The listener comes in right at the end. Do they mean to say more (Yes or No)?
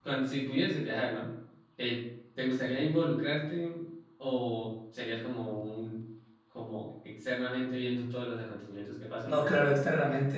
Yes